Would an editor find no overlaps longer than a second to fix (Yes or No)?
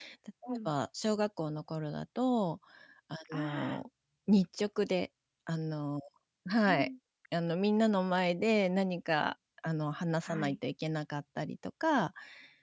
Yes